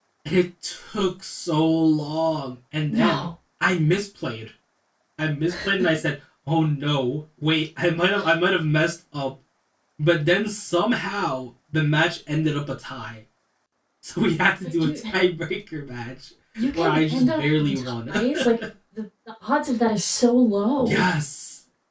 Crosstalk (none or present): present